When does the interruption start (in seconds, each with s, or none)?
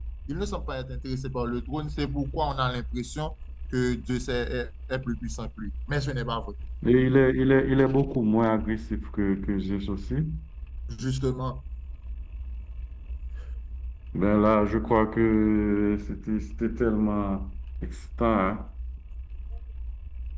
none